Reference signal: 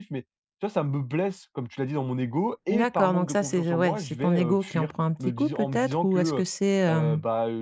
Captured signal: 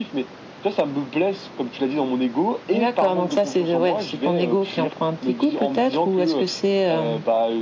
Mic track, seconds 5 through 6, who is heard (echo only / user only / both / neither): echo only